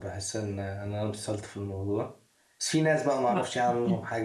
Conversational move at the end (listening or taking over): listening